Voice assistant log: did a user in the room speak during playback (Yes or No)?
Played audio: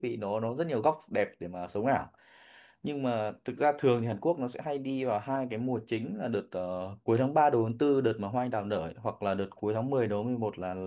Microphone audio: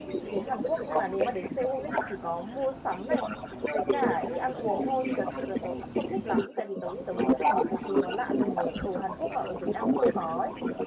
Yes